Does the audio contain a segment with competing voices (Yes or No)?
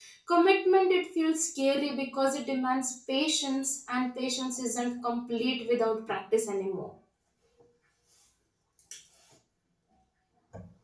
No